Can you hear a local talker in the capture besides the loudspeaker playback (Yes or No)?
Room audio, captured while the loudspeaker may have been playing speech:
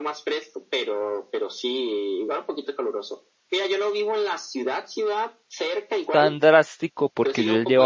Yes